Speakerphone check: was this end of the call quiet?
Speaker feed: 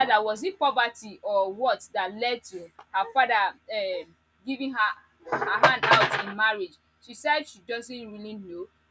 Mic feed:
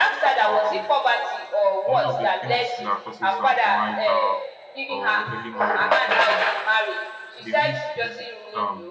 No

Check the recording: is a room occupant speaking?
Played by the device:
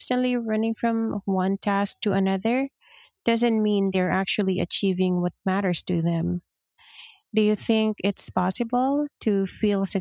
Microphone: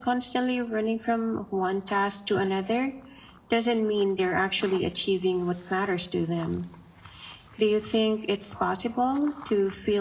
No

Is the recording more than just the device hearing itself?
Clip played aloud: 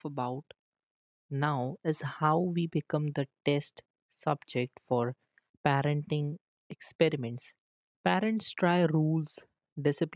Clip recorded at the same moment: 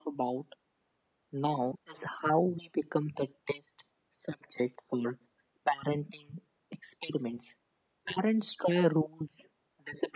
No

